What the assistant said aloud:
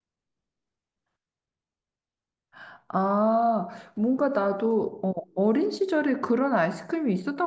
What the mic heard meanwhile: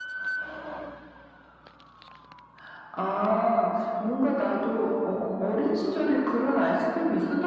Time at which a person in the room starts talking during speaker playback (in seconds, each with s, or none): none